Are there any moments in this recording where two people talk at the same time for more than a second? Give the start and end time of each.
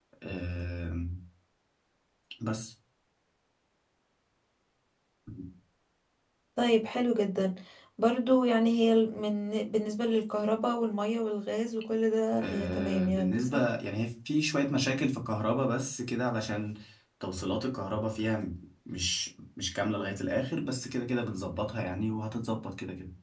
12.4-13.7

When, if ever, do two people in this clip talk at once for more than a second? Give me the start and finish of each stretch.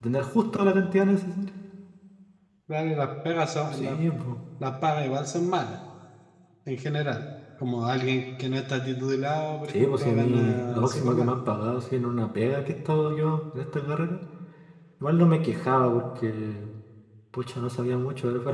9.7-11.3

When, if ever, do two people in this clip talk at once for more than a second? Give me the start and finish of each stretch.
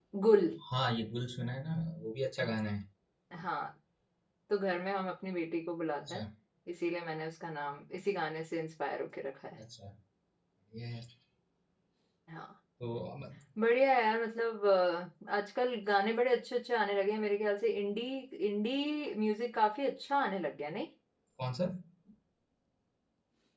none

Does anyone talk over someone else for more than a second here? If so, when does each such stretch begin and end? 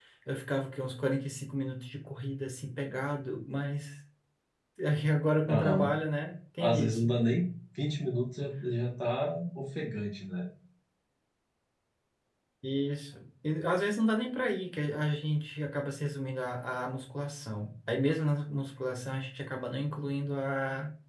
none

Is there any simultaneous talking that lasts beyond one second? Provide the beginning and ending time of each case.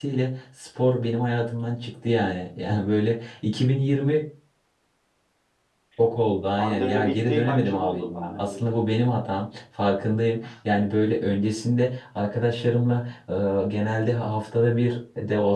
6.6-8.8

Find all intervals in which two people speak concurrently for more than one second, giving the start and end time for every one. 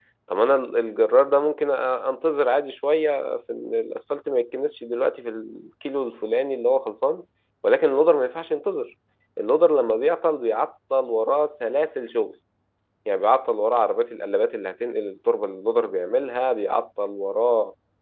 none

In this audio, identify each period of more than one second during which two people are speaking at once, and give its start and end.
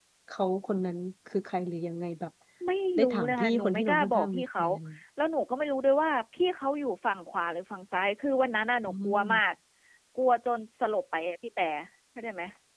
3.0-4.6

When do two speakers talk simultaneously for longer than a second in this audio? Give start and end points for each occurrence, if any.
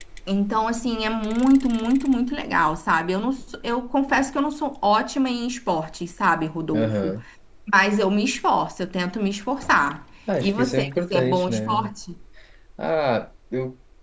10.4-11.9

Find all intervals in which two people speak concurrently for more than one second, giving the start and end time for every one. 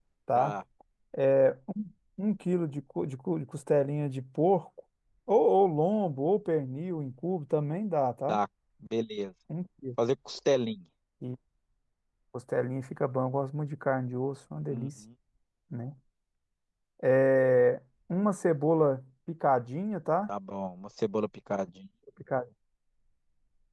none

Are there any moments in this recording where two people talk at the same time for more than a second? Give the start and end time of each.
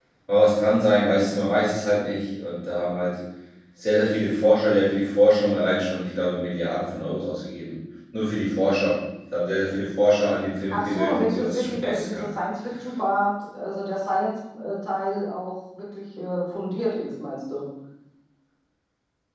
10.7-12.2

